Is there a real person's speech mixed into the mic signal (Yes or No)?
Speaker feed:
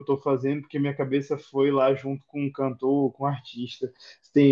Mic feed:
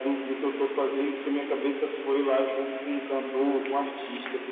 No